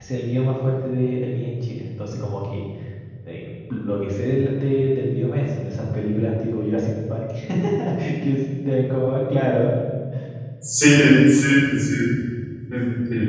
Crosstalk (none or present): none